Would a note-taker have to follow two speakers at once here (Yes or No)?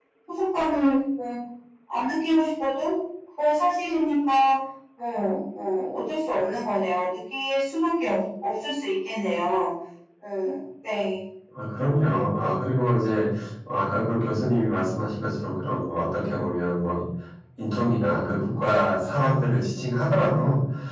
No